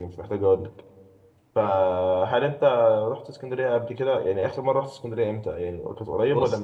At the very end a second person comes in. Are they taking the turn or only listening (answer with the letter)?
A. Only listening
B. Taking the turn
B